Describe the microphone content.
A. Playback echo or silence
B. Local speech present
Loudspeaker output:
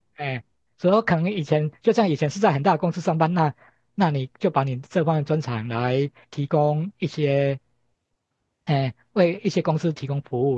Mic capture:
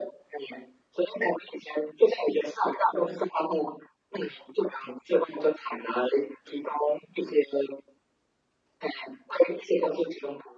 A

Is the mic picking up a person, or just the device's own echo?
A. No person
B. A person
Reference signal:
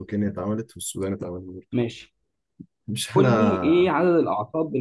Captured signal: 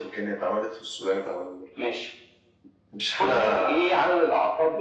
A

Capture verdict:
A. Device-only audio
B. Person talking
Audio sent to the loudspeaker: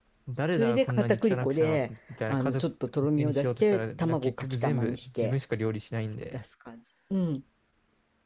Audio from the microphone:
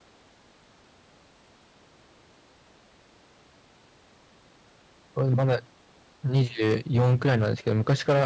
B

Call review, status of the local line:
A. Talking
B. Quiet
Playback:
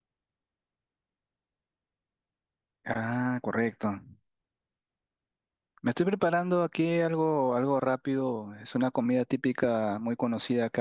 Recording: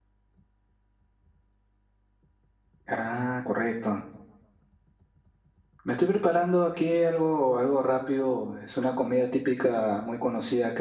B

